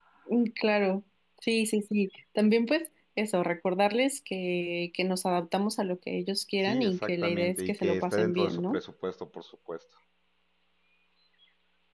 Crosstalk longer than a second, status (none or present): present